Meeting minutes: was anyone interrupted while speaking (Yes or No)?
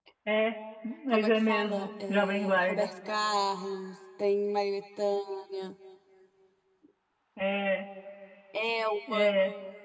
Yes